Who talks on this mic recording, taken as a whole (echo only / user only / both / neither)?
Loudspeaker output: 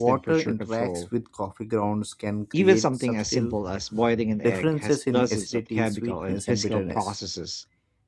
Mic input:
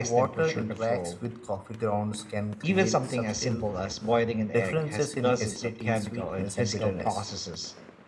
echo only